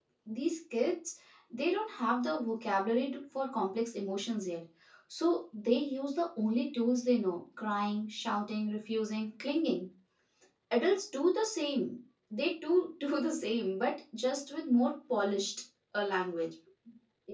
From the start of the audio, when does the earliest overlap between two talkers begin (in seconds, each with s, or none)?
none